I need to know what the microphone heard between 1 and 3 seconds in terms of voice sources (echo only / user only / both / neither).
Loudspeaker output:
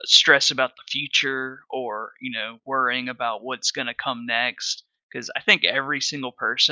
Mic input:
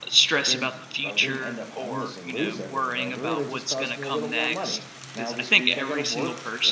both